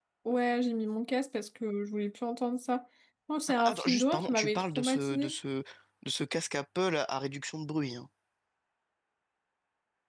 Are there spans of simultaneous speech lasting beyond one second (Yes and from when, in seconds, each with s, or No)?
Yes, from 3.5 s